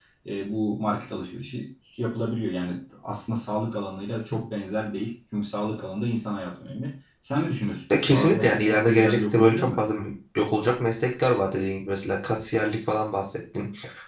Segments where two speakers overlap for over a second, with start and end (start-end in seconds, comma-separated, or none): 7.9-9.8